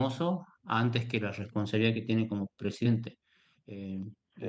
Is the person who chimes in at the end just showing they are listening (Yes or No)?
Yes